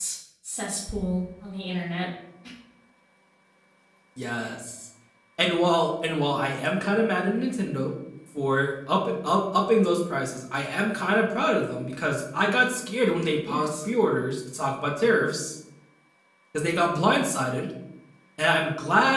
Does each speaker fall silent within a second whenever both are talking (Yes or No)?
Yes